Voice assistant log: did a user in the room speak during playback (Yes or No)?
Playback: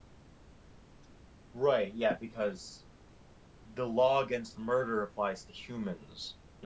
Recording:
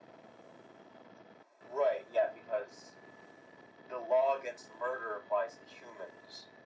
No